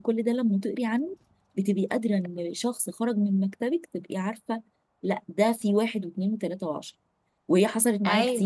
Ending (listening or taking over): listening